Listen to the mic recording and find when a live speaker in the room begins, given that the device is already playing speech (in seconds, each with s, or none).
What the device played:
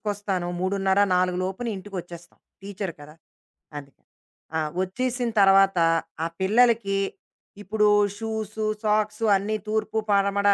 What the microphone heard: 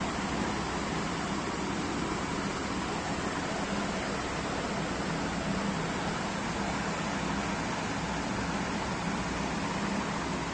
none